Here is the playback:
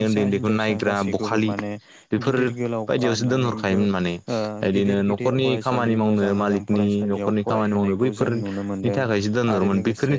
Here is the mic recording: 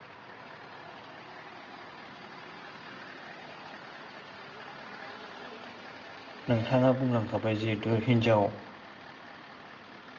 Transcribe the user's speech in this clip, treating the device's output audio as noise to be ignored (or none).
नोंथाङा बुंलांखाबाय जिहेतु हिनजाव